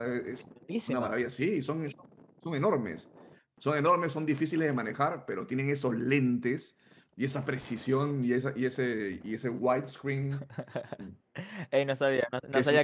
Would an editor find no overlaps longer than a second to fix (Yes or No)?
Yes